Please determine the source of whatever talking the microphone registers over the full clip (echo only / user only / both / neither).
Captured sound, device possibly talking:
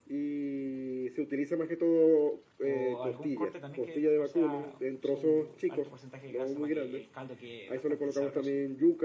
both